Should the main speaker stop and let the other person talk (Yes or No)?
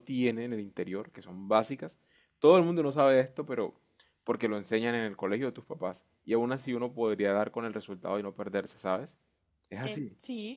Yes